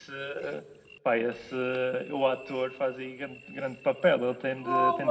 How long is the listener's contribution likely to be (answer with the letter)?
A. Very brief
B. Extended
A